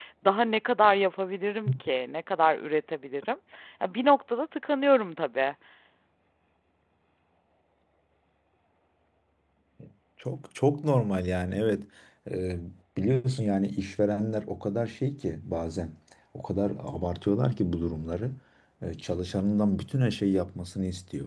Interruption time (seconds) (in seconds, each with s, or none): none